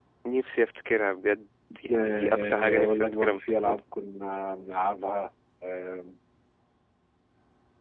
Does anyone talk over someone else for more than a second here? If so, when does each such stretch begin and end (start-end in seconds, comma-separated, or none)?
1.9-3.8